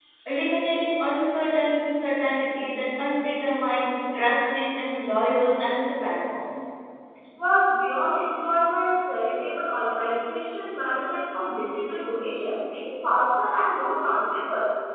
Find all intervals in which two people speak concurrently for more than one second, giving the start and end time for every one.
none

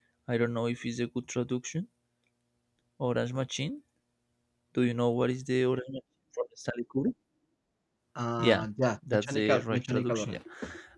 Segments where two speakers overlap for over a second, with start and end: 9.1-10.4

